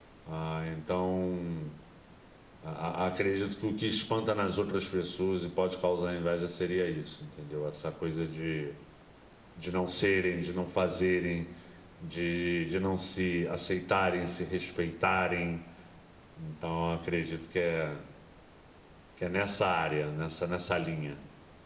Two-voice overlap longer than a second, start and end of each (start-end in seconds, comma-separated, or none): none